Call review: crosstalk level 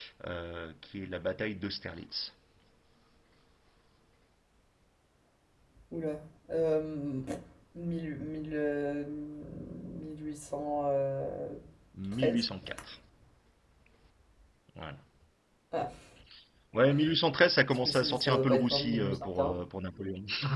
present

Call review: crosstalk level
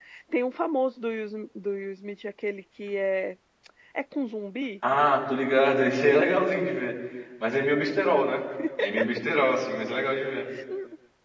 none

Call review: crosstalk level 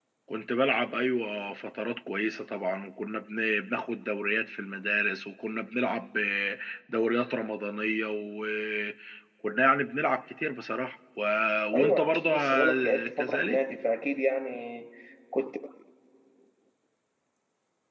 present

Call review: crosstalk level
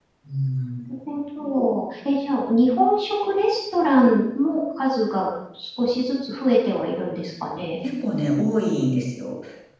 none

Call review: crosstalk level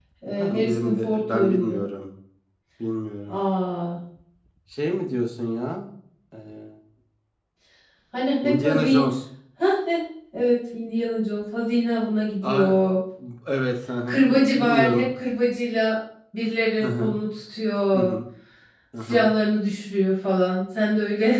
present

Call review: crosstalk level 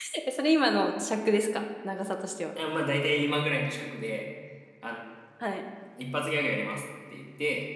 none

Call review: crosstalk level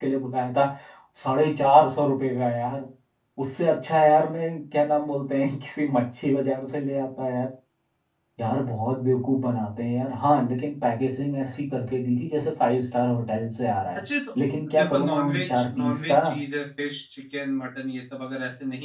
present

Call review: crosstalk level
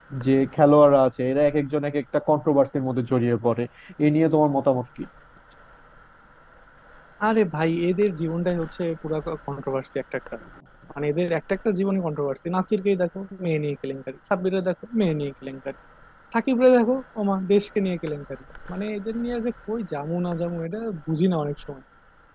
none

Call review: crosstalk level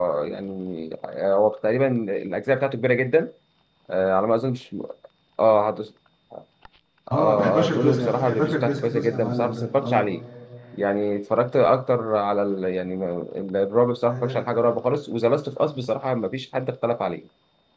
present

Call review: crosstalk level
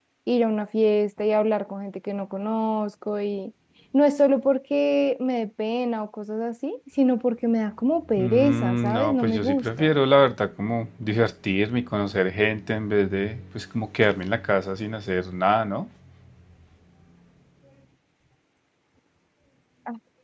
present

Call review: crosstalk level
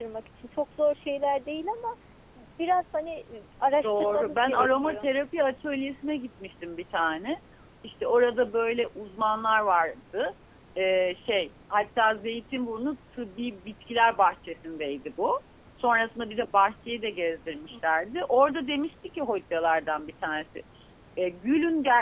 present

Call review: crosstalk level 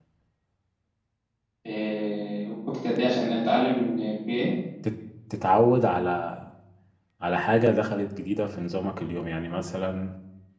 none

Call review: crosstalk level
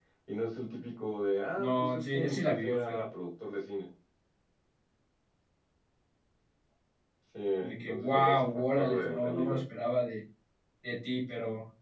present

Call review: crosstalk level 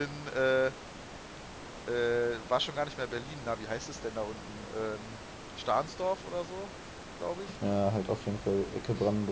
none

